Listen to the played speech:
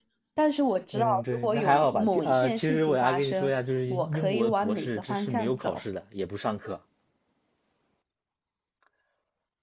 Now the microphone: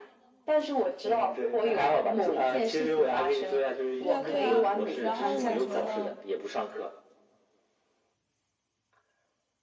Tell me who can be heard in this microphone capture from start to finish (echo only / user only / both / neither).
both